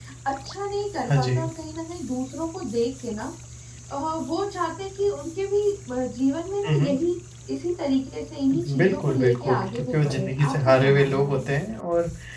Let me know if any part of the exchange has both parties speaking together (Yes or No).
Yes